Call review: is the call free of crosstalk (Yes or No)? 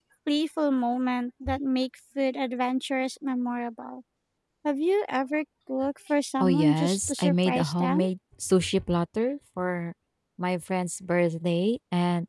No